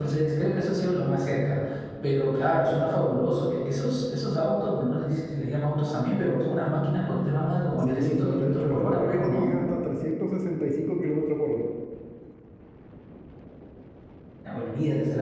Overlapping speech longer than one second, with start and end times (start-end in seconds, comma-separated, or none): 7.8-9.5